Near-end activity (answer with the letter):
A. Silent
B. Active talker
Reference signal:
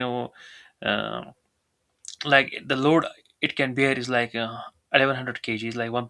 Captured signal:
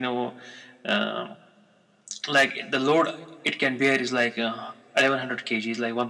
A